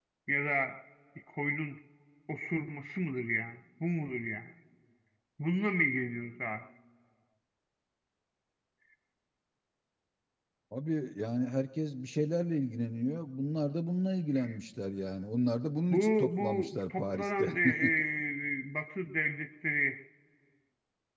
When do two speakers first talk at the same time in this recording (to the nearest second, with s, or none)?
16 s